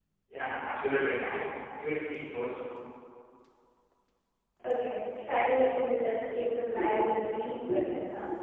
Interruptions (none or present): none